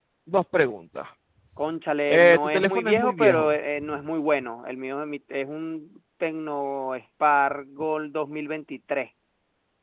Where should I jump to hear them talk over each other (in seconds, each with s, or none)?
2.1 s